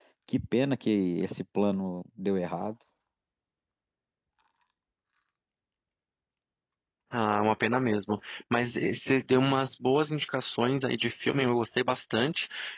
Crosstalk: none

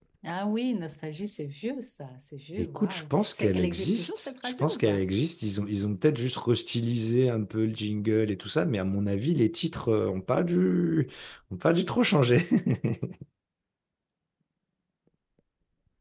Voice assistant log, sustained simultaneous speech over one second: present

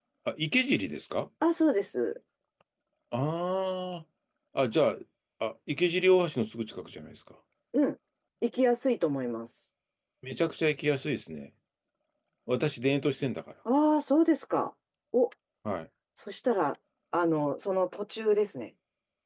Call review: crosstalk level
none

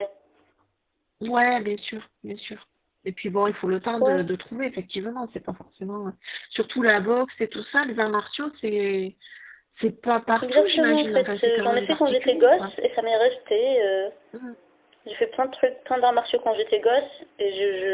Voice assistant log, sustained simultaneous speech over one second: present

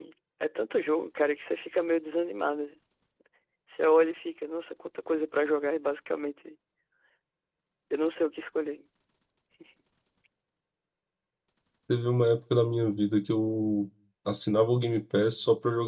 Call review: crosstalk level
none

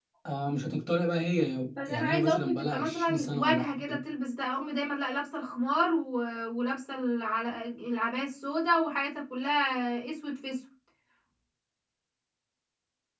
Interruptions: present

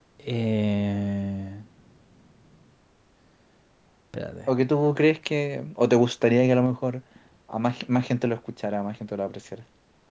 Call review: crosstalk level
none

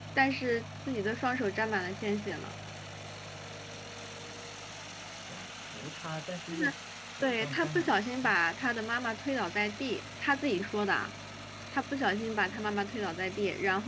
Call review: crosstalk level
present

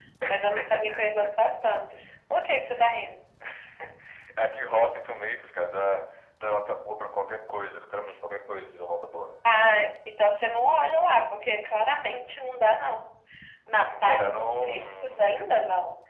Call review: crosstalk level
present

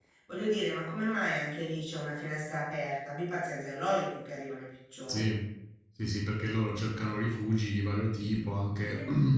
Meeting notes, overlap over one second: none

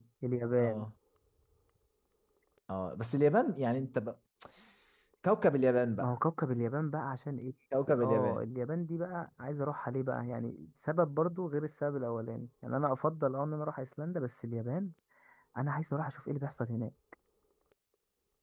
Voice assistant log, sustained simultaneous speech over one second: none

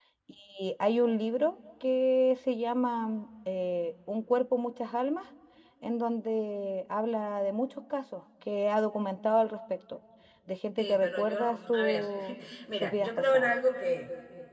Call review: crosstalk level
present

